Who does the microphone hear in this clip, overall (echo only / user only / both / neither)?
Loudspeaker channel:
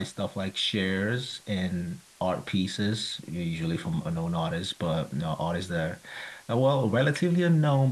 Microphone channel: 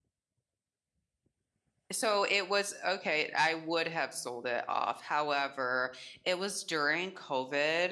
user only